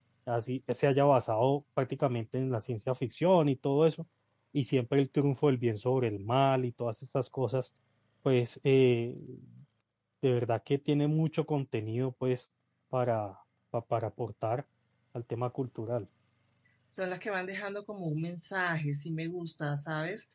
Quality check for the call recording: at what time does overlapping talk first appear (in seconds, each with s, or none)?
none